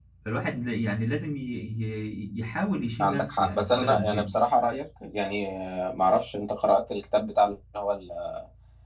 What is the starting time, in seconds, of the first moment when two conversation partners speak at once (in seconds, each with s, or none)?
3.0 s